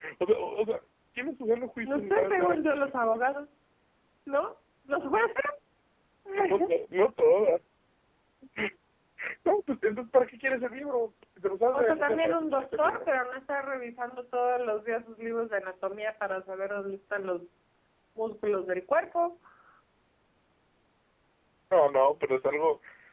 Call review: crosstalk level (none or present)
present